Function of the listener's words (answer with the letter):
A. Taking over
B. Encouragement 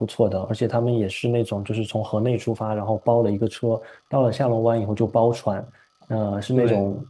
B